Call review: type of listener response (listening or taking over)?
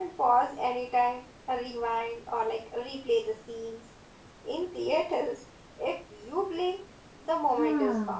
taking over